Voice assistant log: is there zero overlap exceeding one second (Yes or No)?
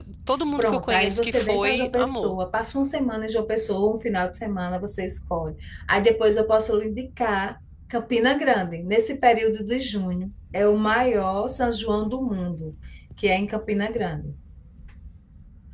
No